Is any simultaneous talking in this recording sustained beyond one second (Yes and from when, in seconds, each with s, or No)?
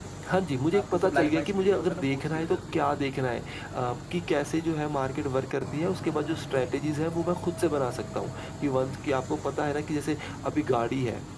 Yes, from 0.7 s